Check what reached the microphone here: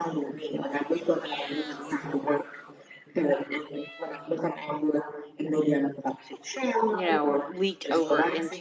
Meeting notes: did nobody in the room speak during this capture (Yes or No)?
No